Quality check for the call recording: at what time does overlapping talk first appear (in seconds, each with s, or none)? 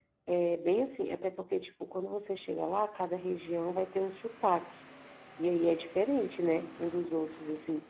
none